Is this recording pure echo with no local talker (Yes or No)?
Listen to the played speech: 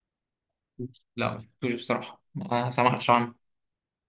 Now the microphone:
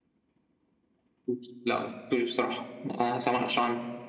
Yes